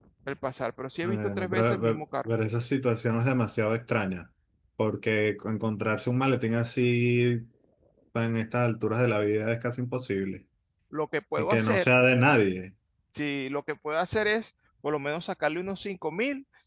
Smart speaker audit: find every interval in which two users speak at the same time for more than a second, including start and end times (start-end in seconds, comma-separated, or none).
1.0-2.3